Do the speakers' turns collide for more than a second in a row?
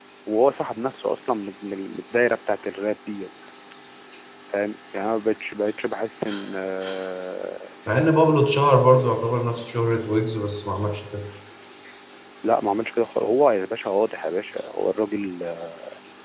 No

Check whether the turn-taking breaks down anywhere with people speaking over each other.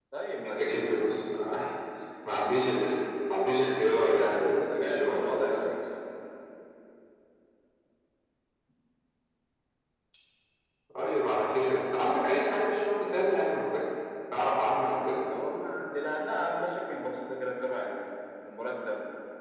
Yes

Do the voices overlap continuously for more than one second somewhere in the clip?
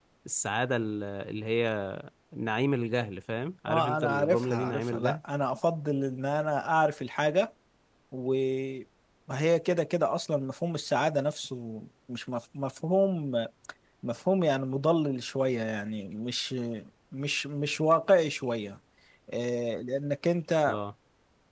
Yes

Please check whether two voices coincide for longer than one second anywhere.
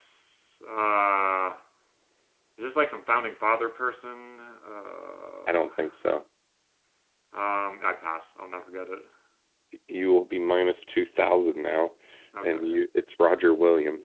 No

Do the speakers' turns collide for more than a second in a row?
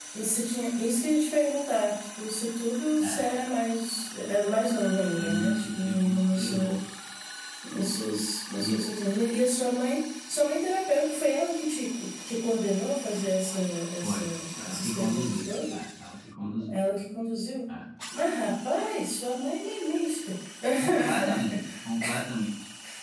Yes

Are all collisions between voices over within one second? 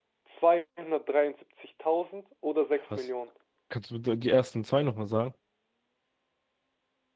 Yes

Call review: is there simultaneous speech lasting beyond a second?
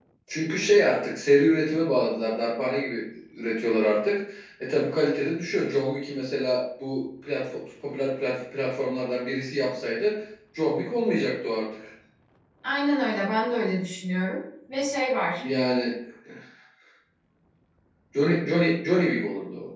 No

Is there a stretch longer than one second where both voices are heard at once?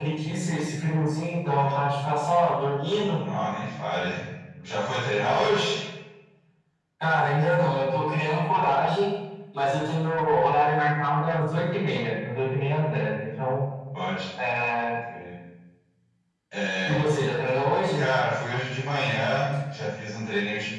No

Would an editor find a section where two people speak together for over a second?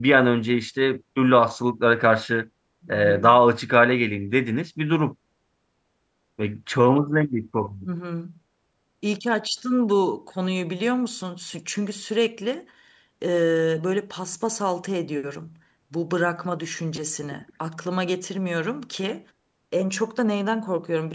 No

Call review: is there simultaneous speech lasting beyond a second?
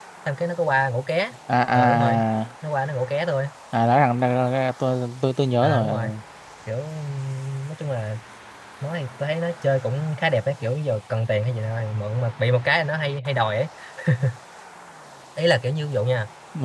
No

